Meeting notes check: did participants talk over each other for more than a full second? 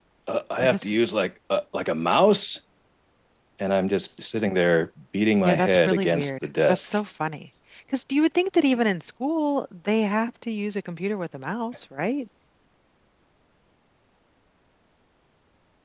Yes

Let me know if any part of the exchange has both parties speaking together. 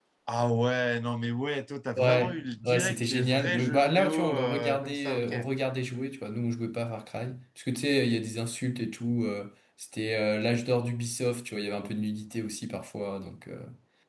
Yes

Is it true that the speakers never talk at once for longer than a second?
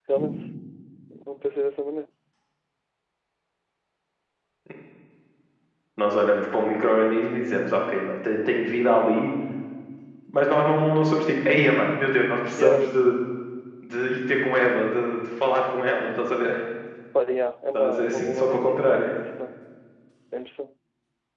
No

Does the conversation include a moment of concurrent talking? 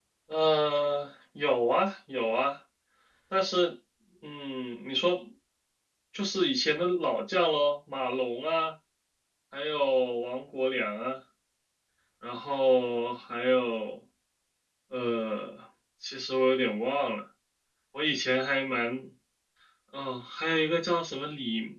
No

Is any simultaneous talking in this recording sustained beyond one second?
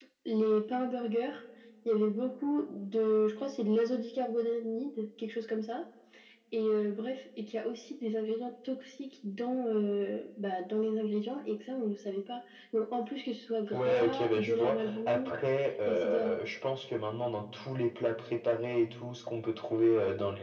Yes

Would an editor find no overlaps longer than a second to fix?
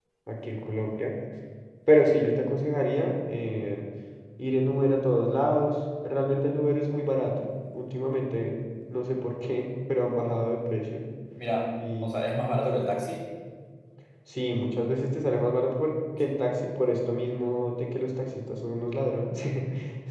Yes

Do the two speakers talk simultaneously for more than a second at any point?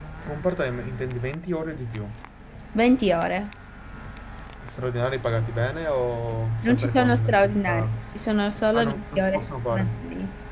Yes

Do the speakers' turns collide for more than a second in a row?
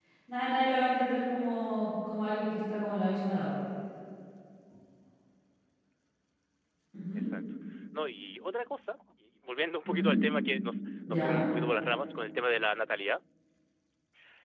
No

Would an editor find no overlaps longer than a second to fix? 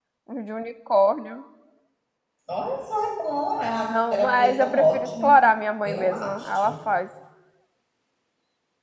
No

